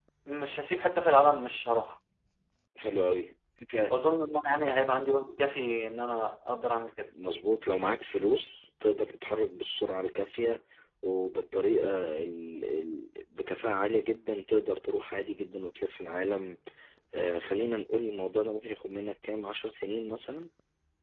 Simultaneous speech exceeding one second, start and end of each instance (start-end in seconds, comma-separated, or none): none